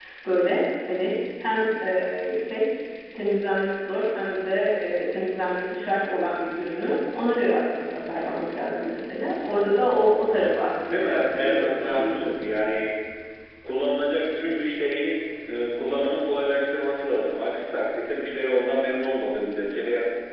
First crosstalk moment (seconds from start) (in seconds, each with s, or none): 10.8 s